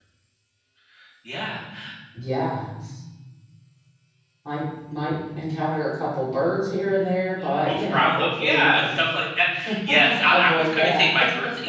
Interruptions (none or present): present